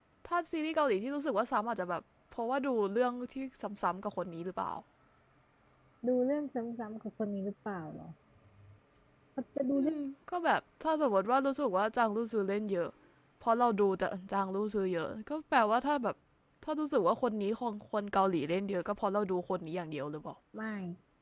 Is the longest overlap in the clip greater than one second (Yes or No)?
No